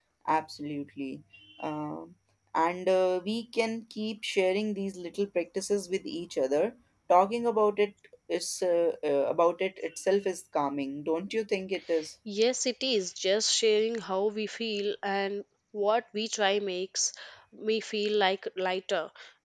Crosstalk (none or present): none